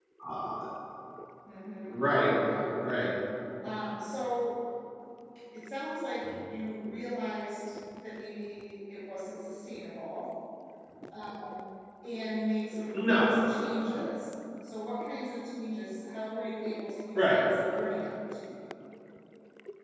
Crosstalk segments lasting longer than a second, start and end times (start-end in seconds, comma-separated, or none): none